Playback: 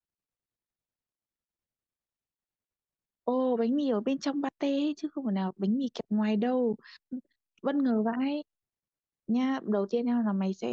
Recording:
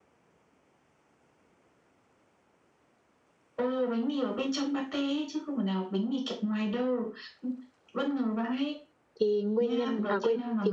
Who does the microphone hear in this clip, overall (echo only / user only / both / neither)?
both